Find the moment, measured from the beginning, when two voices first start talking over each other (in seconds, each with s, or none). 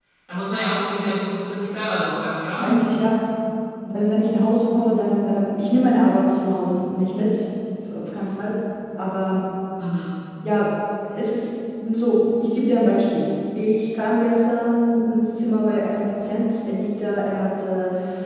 none